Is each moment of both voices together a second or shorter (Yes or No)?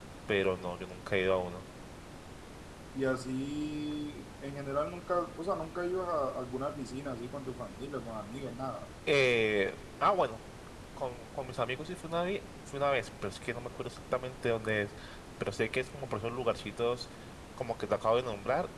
Yes